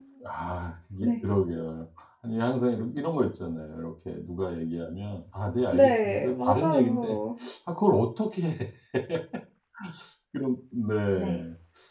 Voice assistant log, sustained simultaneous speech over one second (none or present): present